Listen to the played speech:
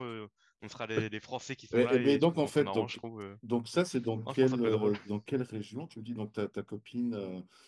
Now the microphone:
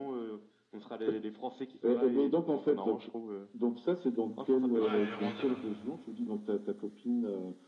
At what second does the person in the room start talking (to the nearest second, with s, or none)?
5 s